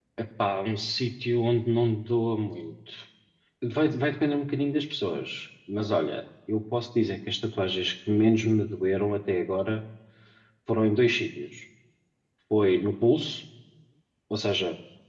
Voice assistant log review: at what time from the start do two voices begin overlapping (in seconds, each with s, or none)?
none